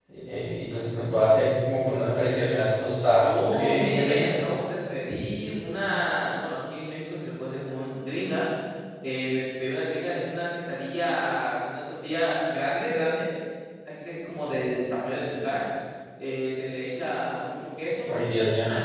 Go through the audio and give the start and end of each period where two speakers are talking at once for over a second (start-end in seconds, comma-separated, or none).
3.2-4.4